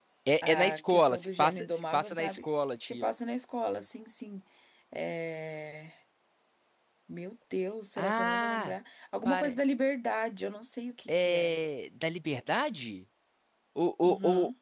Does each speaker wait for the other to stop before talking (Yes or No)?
No